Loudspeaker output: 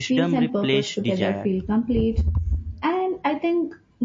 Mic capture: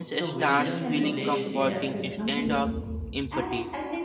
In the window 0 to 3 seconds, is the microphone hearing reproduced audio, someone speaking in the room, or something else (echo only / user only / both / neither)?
both